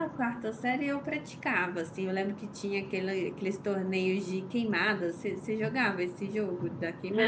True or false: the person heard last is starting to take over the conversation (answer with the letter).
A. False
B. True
B